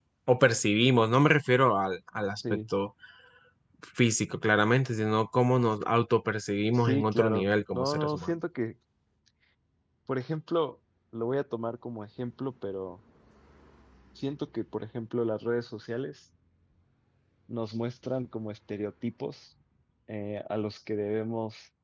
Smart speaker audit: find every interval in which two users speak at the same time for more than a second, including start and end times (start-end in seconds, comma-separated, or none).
6.7-8.4